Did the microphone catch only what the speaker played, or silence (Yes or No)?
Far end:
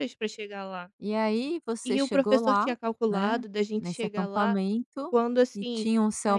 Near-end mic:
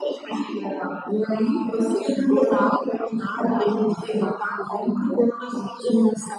Yes